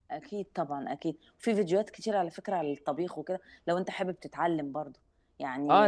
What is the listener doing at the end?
taking over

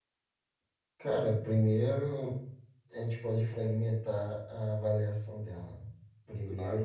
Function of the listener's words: listening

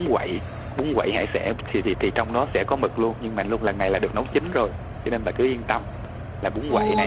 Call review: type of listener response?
taking over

